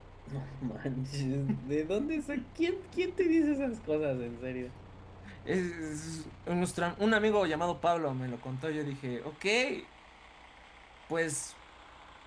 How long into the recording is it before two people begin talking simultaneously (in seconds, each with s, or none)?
none